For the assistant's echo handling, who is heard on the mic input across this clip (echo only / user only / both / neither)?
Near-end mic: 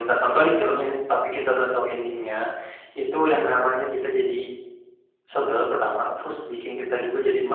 echo only